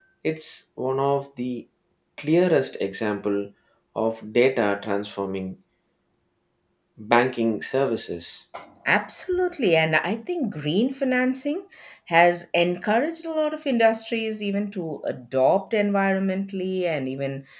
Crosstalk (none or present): none